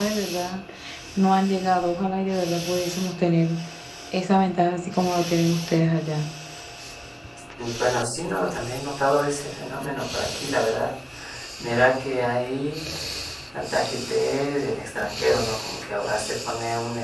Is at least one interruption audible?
No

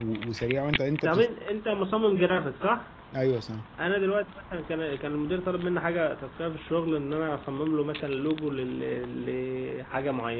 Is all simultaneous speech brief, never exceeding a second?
Yes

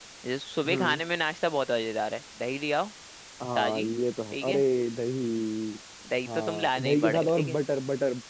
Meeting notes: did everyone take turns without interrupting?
No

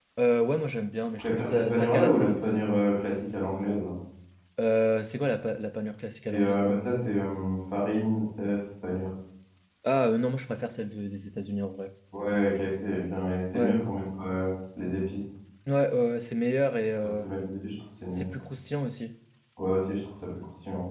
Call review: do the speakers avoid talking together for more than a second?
No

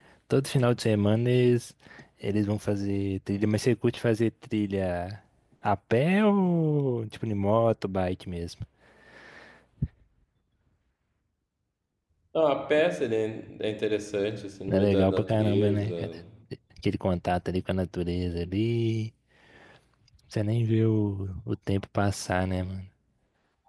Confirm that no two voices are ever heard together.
No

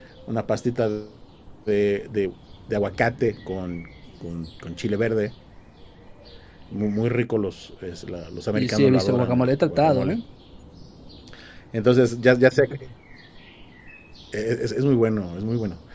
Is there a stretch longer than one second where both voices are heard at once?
Yes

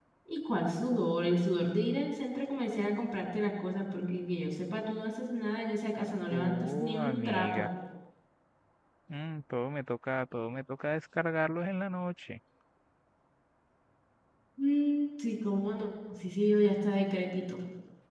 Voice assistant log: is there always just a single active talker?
No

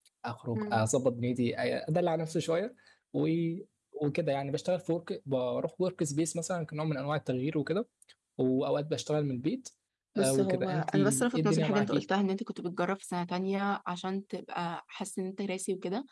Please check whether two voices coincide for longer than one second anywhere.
Yes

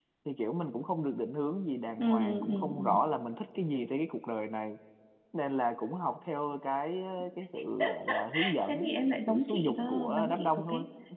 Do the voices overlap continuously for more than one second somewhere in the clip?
Yes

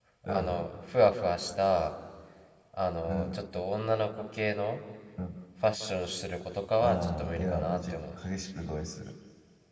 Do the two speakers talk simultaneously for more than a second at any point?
Yes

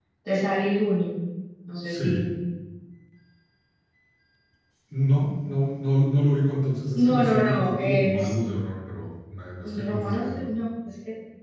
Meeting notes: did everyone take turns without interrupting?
No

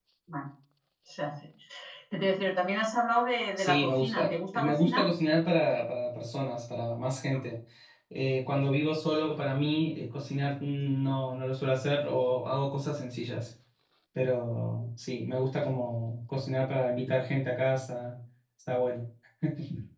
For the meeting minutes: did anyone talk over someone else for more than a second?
Yes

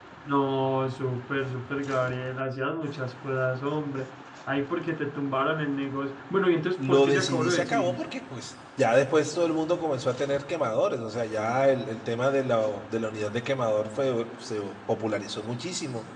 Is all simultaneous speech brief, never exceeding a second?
No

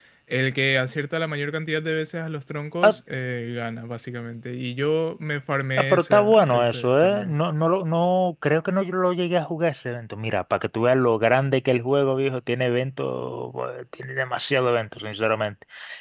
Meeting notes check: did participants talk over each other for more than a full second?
Yes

